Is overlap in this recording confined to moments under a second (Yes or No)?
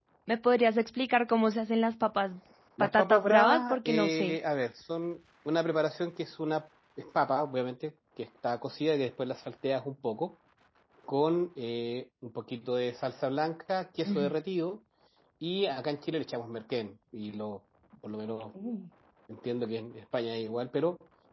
No